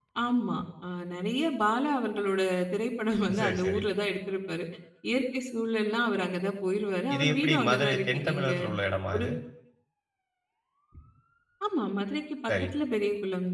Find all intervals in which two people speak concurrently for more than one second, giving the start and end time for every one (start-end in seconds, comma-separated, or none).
7.1-8.5